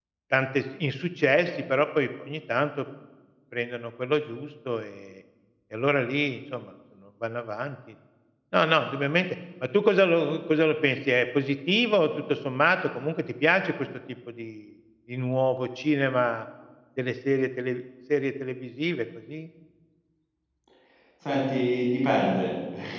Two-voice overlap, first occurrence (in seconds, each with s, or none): none